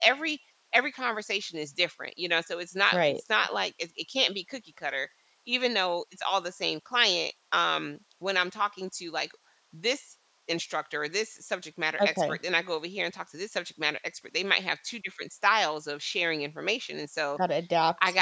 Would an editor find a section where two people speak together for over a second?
No

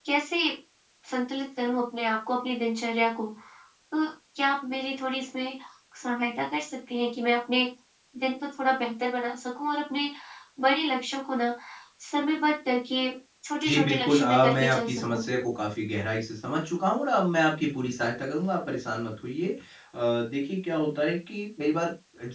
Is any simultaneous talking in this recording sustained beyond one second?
Yes, from 13.6 s

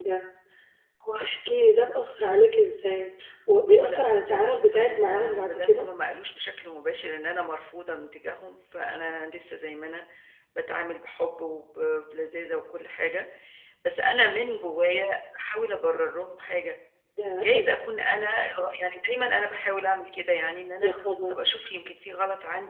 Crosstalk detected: Yes, from 3.7 s

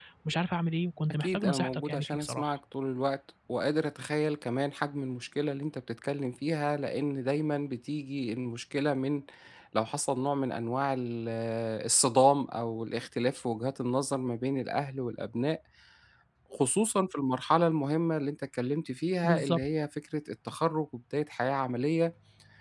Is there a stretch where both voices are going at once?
Yes, from 1.2 s

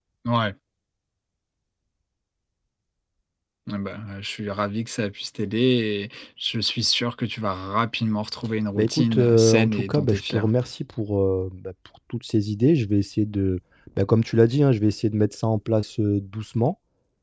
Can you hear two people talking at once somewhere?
Yes, from 8.8 s

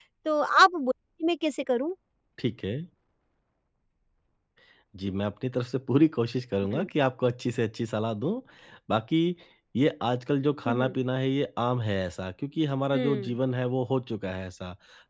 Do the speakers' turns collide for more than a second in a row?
No

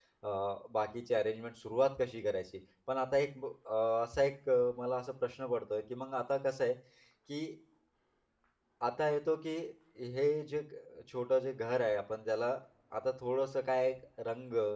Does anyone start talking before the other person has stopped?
No

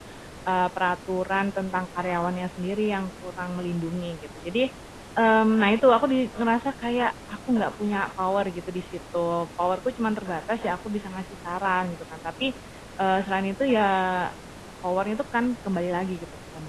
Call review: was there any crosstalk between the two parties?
No

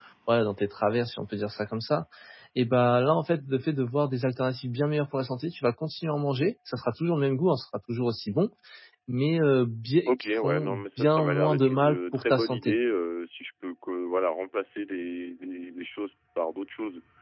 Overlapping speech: Yes, from 10.1 s

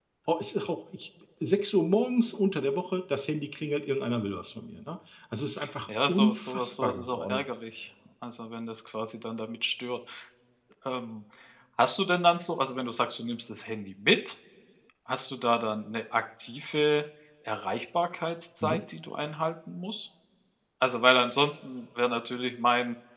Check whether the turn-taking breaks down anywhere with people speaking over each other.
Yes, from 6.1 s

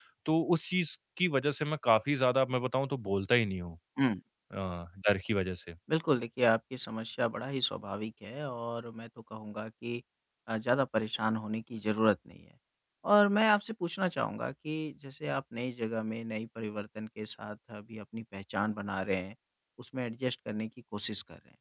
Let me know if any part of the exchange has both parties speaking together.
No

